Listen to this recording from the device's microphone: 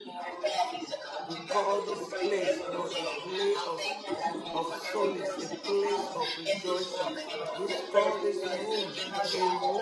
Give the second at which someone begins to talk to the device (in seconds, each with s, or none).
1.2 s